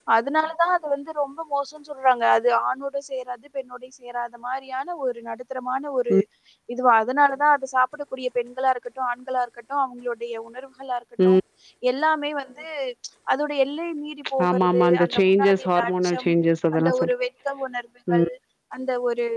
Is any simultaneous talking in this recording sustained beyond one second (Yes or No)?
Yes